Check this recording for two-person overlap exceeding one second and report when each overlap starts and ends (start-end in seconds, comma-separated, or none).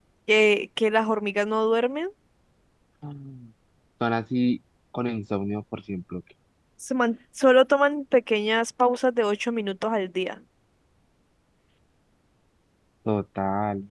none